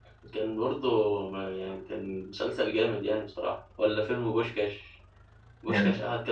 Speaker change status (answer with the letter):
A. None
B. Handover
A